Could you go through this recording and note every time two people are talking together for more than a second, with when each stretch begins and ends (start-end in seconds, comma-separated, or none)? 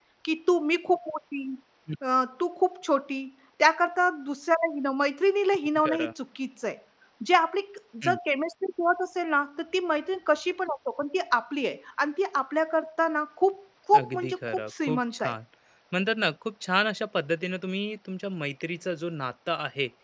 14.0-15.3